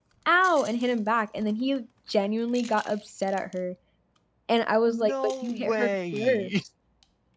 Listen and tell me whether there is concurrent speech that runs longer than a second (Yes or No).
Yes